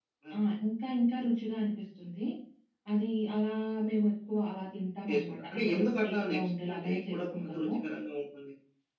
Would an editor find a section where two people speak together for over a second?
Yes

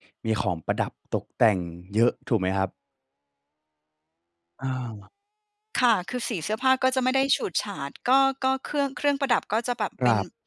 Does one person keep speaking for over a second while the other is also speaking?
No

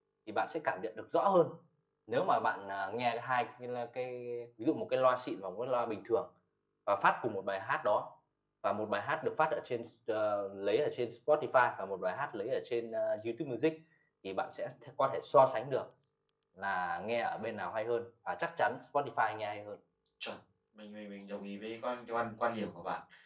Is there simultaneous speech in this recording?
No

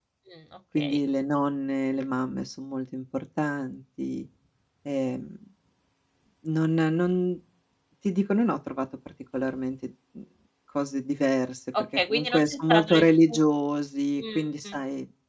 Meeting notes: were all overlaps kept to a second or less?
No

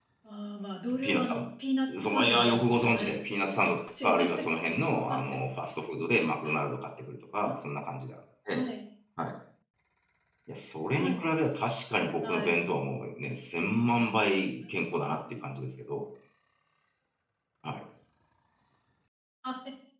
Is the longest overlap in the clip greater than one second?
Yes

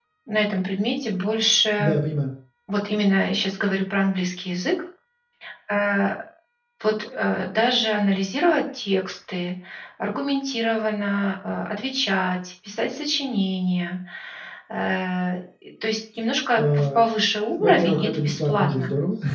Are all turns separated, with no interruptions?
No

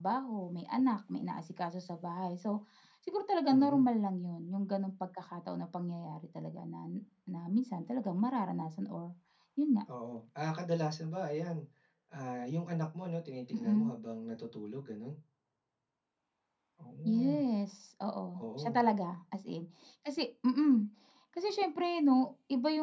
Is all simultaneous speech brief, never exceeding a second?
Yes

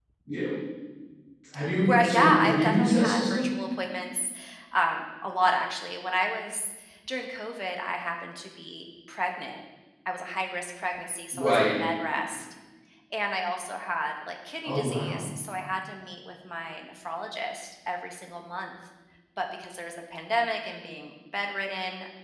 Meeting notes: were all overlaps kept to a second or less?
No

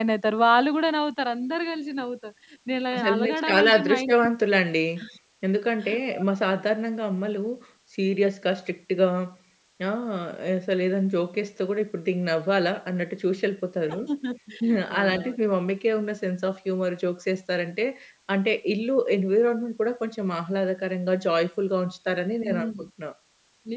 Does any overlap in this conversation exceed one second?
Yes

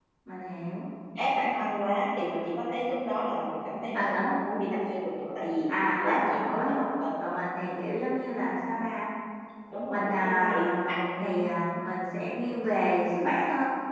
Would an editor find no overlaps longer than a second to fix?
No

